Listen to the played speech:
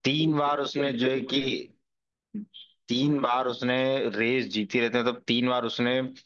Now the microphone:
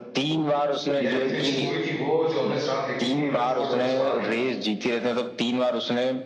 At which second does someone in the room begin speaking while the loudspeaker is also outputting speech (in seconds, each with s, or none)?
1.0 s